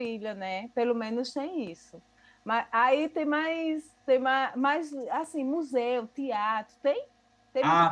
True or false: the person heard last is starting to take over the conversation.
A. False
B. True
B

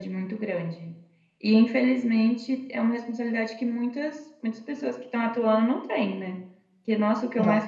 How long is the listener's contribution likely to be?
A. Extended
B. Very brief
B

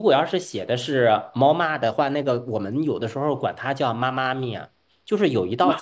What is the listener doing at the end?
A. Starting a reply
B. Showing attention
B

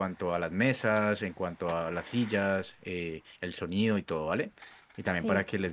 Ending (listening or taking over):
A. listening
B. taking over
A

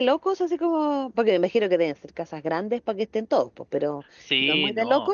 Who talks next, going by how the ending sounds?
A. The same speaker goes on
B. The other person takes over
B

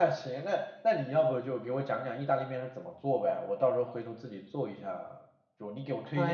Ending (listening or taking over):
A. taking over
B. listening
B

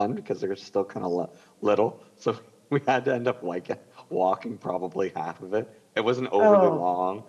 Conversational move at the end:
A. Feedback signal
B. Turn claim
A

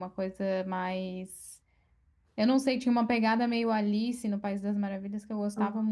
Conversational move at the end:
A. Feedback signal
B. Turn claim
A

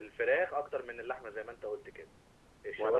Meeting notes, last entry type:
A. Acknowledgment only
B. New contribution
A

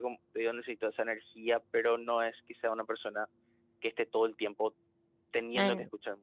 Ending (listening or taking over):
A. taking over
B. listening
A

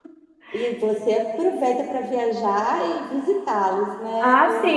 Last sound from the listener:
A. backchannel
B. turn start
B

